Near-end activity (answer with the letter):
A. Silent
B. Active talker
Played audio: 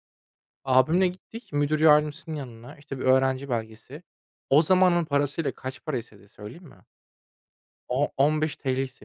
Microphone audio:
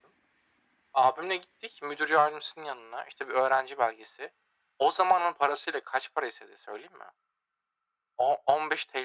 A